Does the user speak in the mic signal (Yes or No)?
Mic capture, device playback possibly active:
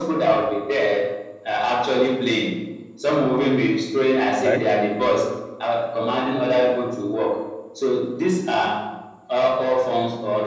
Yes